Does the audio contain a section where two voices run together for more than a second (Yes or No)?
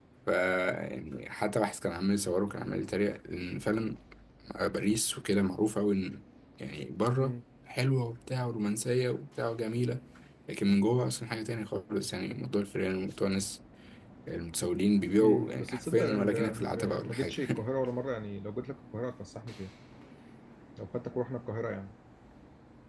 Yes